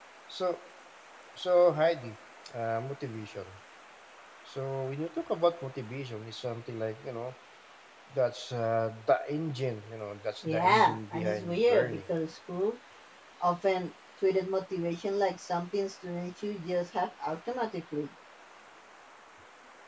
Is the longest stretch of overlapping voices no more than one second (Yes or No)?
No